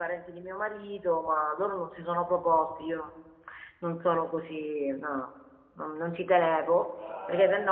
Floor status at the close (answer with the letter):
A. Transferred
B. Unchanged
B